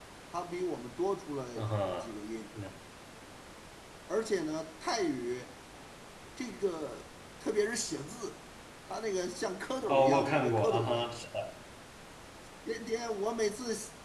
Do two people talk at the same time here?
Yes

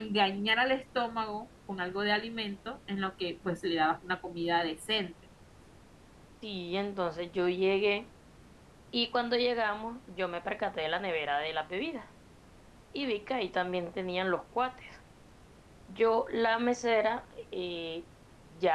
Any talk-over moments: No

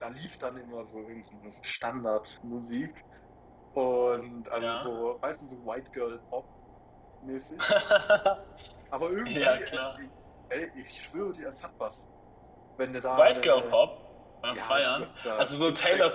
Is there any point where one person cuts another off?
Yes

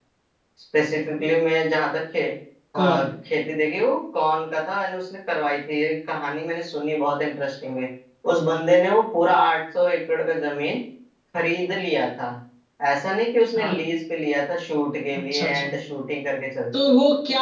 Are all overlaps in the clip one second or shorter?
Yes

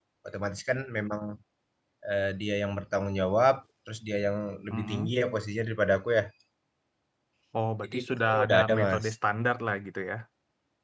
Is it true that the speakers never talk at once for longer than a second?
No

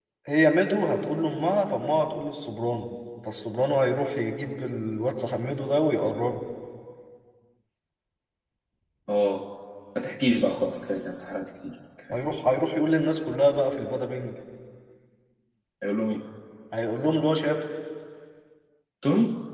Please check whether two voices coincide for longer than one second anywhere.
No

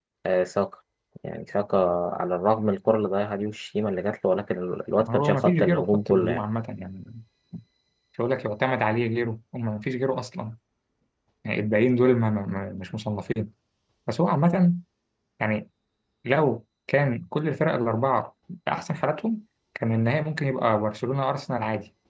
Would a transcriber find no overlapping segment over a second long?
No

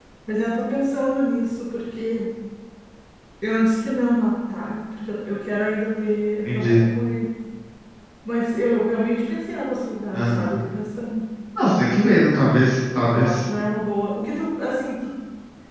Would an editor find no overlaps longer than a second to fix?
Yes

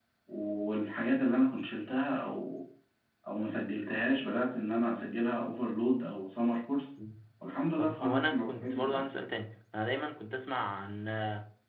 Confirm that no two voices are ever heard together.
No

